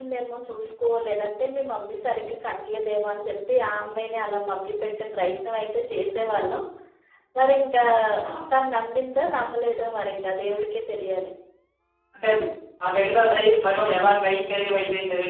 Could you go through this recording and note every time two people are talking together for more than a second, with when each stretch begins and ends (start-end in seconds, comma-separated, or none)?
none